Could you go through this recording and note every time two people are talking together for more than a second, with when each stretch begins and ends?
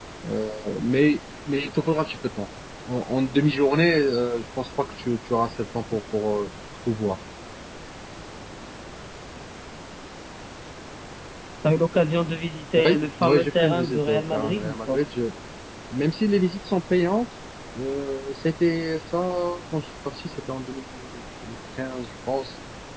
12.8-15.0

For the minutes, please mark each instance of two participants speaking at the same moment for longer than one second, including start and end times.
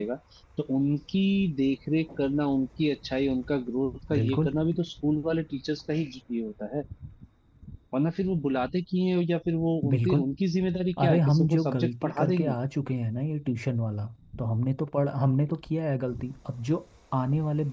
11.0-12.5

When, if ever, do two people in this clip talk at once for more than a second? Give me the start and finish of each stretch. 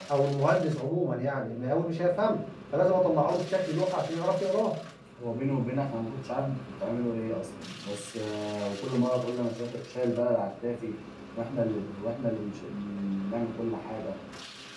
none

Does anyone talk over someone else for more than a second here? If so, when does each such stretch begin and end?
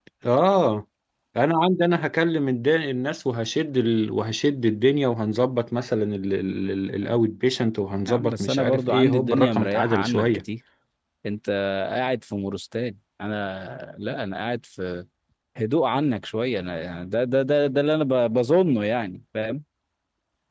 8.1-10.4

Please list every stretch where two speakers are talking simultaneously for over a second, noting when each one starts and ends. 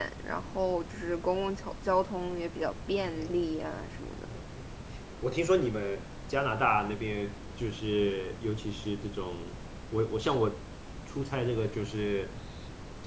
none

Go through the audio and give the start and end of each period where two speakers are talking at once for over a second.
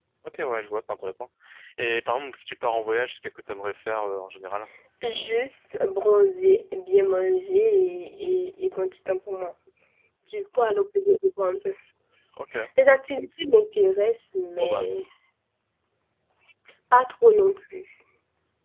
none

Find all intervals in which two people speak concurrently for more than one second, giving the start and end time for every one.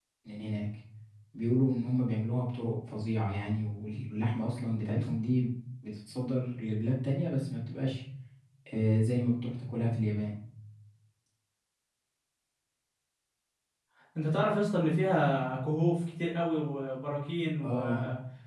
none

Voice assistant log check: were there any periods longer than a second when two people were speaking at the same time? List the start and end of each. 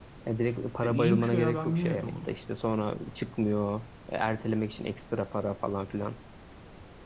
0.8-2.3

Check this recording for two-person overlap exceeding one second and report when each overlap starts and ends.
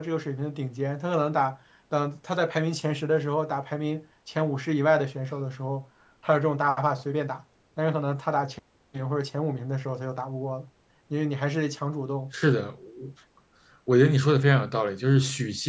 none

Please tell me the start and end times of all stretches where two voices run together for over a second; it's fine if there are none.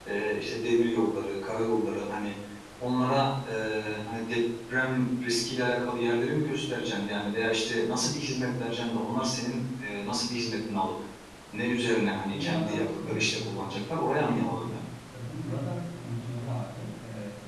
12.3-14.8

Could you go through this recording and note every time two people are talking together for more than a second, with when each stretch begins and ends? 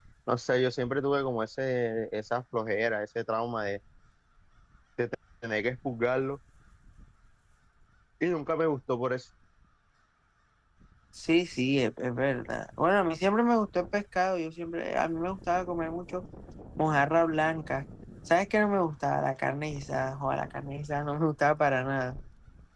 none

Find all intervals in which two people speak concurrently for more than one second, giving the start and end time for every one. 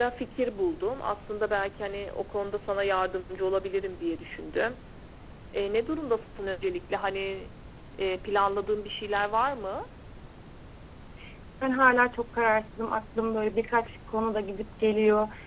none

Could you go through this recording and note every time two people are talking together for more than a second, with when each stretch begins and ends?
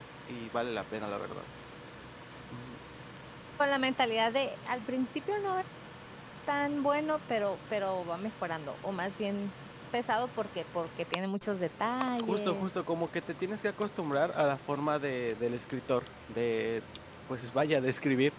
none

